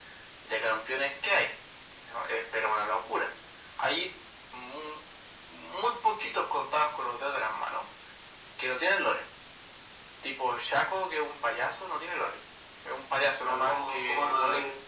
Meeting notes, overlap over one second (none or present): present